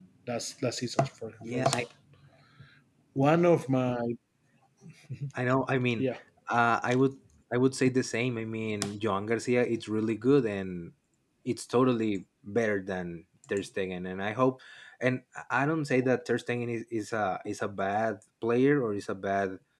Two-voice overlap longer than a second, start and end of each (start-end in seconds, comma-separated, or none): none